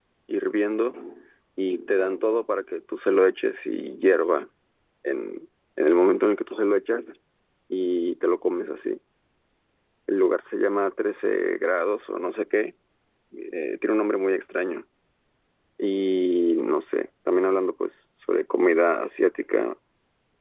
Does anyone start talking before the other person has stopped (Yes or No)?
No